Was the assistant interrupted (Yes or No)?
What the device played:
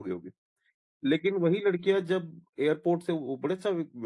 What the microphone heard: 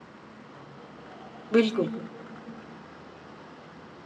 Yes